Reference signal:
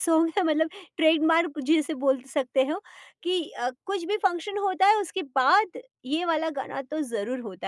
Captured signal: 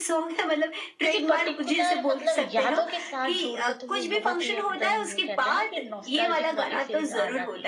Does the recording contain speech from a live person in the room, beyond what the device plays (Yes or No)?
Yes